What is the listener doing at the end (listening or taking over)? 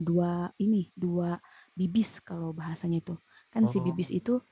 listening